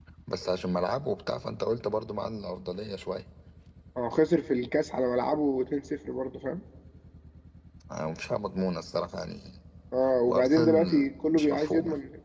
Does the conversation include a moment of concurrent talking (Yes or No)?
Yes